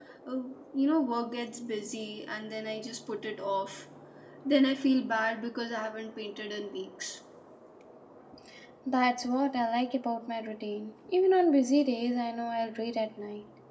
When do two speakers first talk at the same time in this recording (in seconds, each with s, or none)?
none